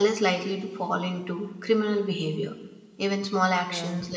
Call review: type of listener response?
listening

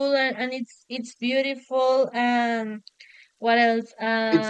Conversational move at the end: taking over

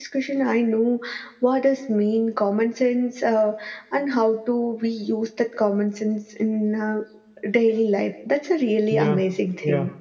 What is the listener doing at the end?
taking over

